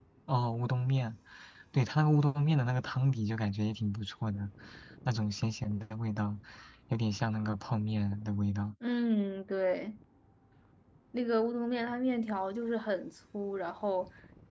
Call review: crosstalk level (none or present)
none